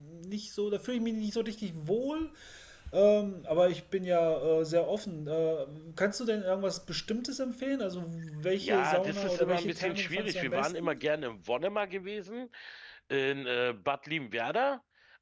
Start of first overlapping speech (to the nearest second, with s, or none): 9 s